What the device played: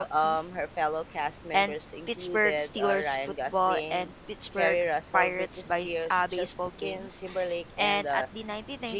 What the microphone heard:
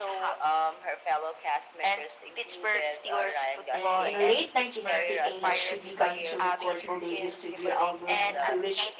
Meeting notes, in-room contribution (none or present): present